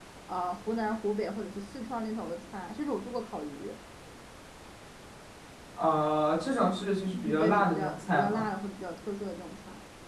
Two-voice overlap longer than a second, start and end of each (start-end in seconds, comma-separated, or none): 7.1-8.4